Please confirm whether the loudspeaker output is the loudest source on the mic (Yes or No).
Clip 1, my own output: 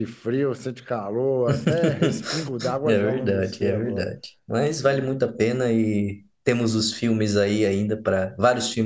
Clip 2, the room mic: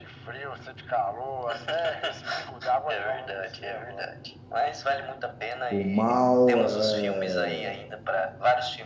No